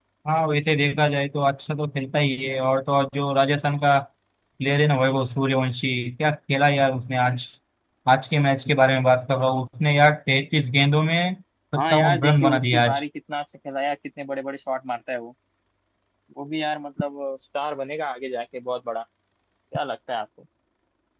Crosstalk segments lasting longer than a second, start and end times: 11.8-13.0

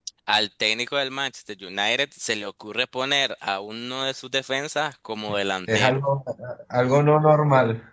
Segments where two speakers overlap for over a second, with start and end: none

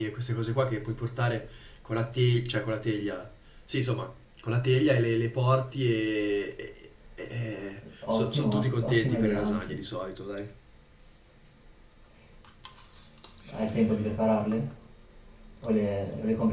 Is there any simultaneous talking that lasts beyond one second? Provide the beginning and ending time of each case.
8.1-9.8

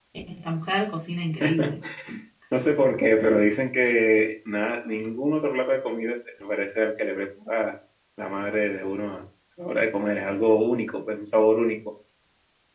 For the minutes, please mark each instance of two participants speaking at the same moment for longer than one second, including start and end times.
none

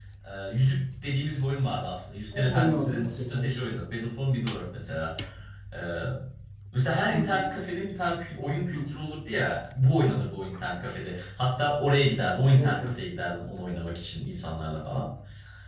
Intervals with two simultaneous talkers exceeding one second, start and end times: 2.4-3.6

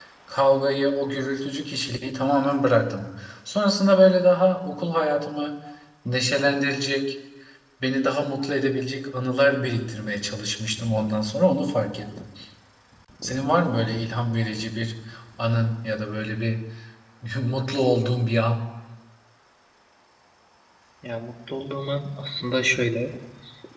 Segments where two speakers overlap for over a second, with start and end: none

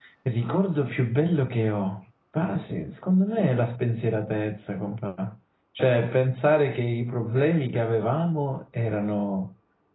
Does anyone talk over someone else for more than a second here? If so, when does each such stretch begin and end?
none

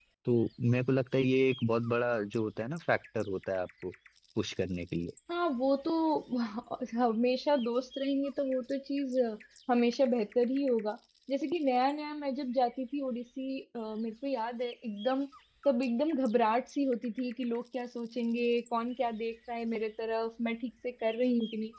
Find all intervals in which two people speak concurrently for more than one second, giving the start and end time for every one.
none

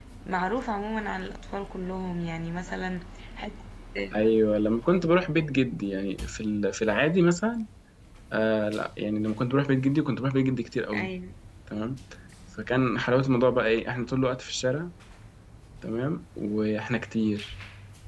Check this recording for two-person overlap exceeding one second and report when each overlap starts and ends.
none

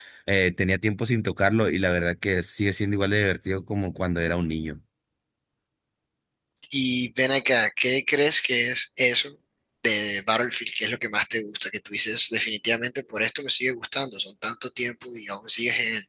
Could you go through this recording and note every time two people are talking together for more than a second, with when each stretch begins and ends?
none

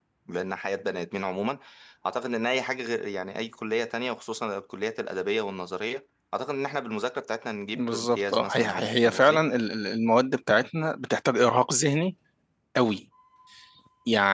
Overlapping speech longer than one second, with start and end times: 7.7-9.4

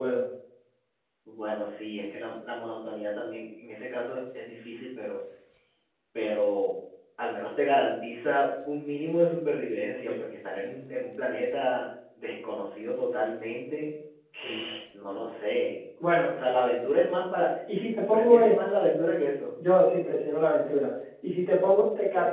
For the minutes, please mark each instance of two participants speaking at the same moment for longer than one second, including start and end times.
none

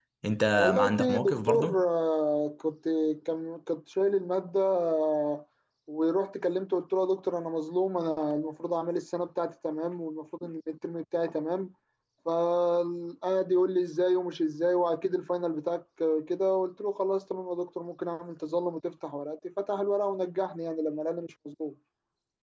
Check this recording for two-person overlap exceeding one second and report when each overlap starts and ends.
0.6-1.8

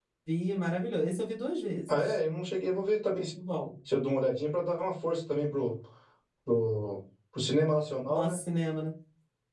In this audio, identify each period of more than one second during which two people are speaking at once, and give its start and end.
none

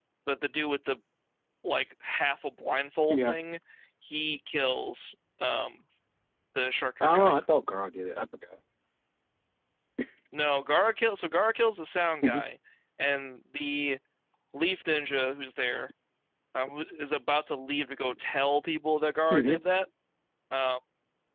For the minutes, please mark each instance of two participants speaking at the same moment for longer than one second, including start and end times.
none

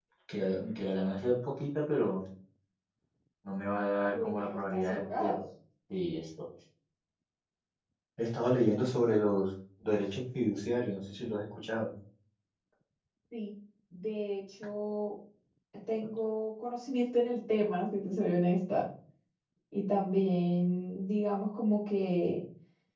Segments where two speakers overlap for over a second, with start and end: 4.1-5.4

